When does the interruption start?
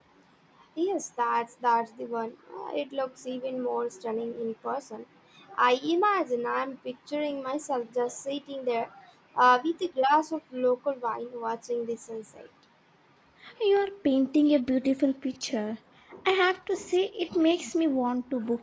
none

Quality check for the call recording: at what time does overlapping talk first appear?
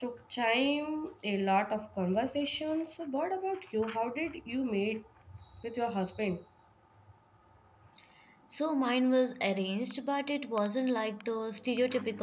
none

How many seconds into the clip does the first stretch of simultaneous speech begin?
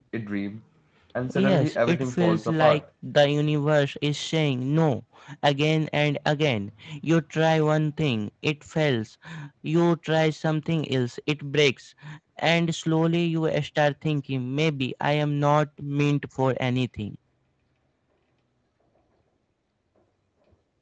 1 s

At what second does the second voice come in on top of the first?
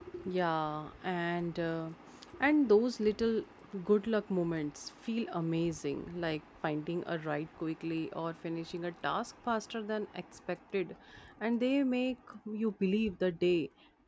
none

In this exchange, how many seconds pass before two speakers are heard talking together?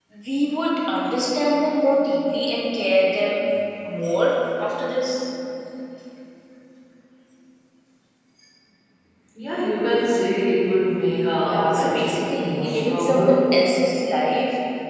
11 s

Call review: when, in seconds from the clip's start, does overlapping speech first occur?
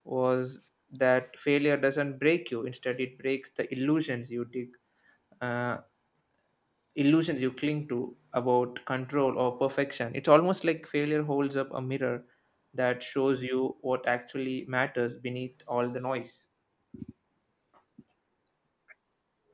none

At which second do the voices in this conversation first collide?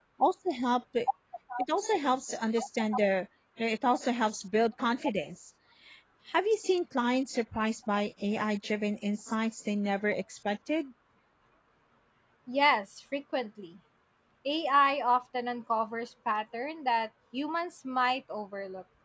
none

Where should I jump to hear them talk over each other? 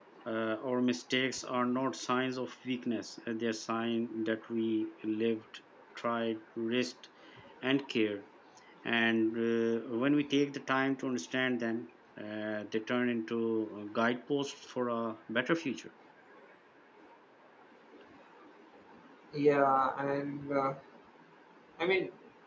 none

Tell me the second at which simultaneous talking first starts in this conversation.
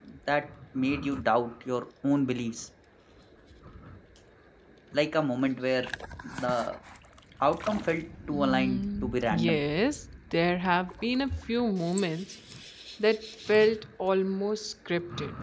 8 s

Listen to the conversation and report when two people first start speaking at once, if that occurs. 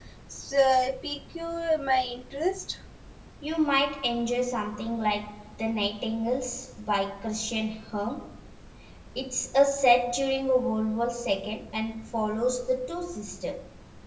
none

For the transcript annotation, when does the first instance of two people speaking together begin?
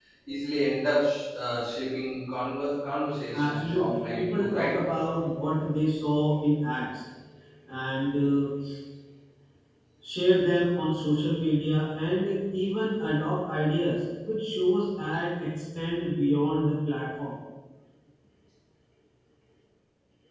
3 s

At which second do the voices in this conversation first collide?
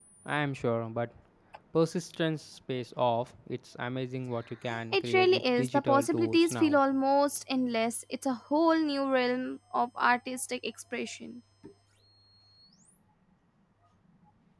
5 s

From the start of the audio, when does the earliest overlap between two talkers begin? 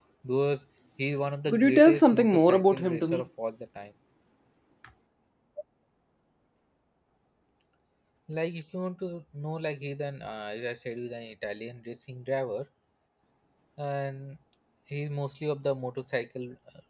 1 s

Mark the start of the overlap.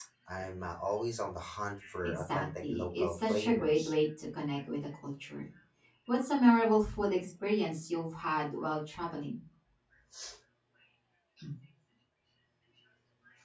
2 s

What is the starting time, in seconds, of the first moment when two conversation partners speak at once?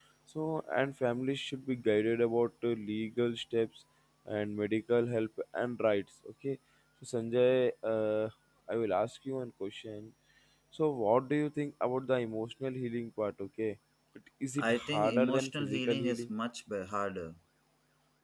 15 s

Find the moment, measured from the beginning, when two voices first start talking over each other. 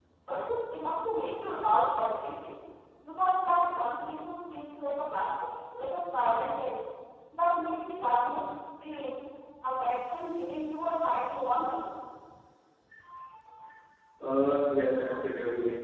none

